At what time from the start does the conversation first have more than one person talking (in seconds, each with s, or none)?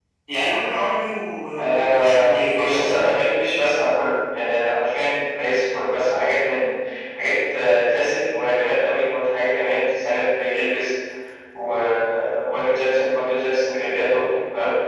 1.6 s